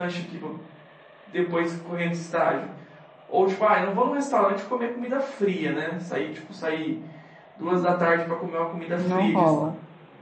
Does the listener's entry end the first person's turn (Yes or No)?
No